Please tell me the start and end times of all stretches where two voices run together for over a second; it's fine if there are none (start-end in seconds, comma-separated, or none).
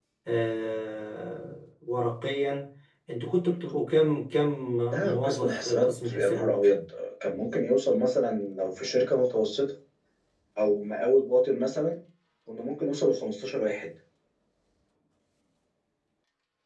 5.1-6.5